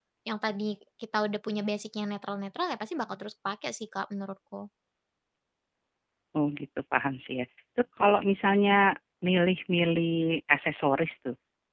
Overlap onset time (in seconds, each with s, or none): none